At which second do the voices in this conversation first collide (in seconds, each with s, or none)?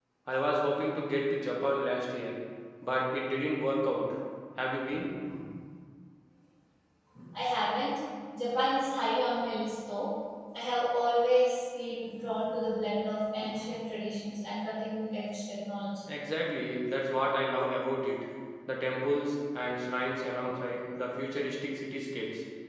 none